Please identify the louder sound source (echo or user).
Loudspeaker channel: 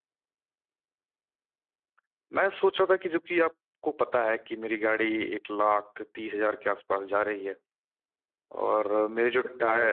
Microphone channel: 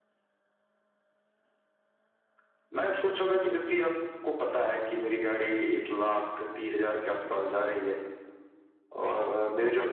echo